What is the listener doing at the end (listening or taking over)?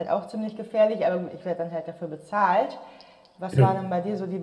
listening